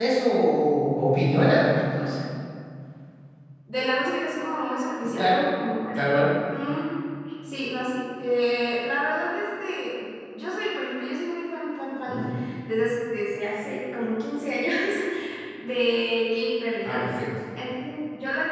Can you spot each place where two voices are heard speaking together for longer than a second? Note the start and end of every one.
none

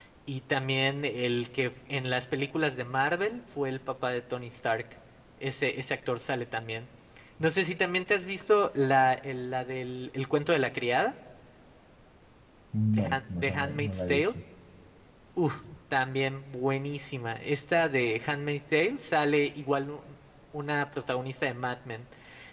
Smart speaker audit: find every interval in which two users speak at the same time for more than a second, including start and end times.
12.9-14.3

